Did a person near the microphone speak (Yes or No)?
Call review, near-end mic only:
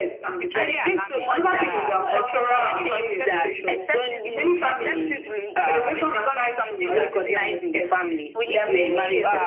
Yes